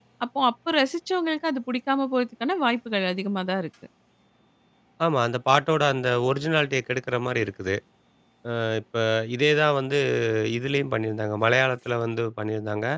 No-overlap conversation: Yes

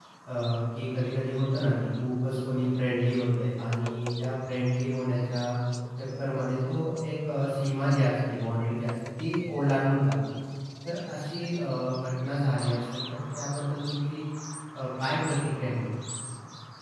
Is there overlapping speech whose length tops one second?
No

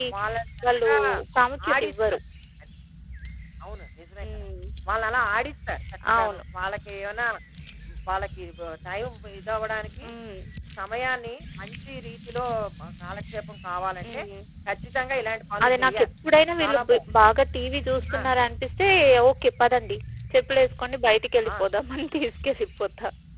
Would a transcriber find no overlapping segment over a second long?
Yes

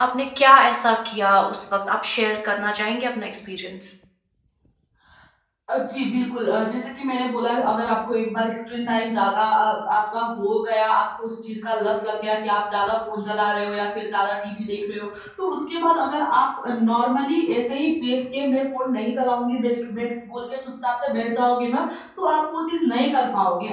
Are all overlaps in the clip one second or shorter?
Yes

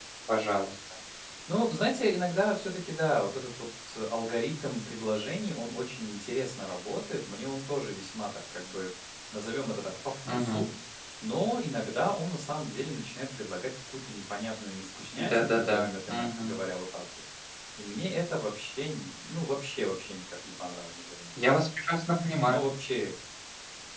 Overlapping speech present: Yes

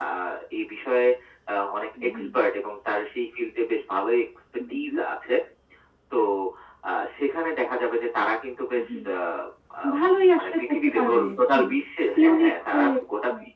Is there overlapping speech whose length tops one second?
Yes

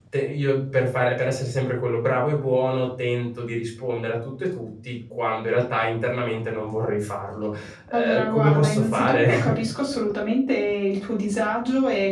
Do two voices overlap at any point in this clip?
Yes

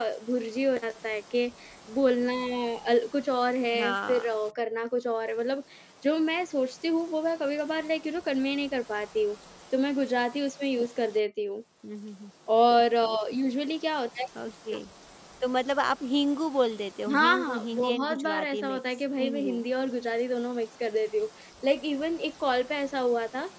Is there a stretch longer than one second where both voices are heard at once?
Yes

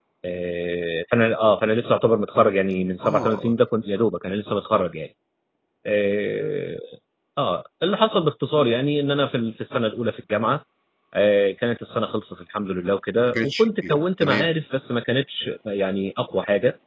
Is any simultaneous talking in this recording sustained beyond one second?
Yes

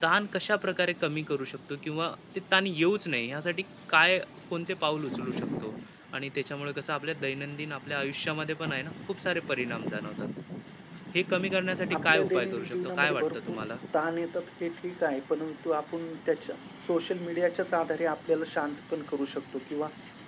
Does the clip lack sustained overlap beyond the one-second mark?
No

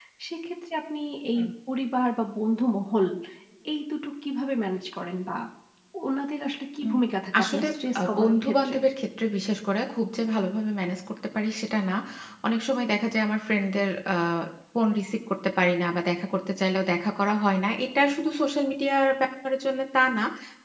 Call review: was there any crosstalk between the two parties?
Yes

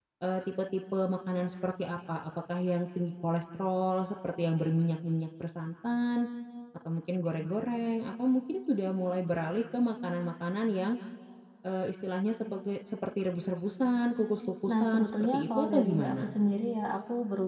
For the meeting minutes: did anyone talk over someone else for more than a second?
Yes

